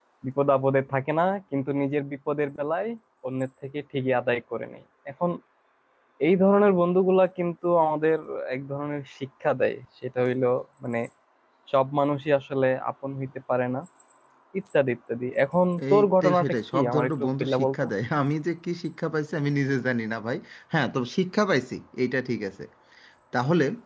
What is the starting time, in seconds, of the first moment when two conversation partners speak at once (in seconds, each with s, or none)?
15.8 s